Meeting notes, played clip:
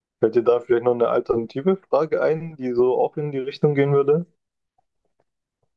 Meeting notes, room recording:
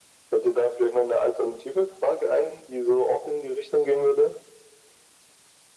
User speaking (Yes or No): No